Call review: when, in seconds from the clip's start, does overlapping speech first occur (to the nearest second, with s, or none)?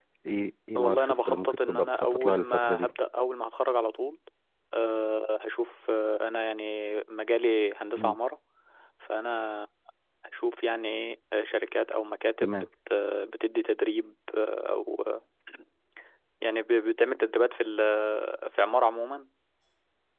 1 s